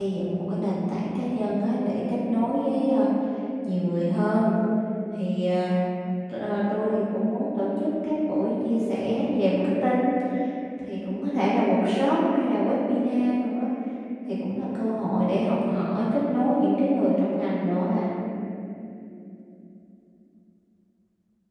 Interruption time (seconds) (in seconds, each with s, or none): none